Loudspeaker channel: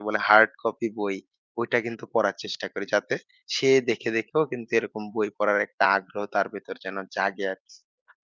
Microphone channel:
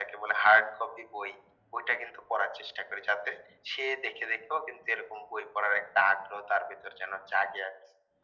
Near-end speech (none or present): none